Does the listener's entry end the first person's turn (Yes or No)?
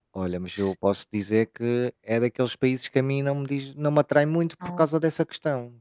No